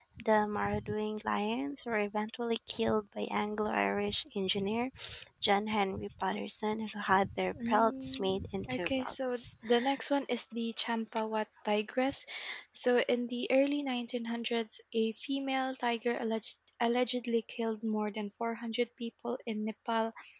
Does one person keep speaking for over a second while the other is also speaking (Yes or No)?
Yes